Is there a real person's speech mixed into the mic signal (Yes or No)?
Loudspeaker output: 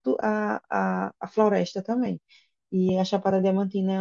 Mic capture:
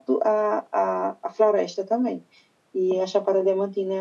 No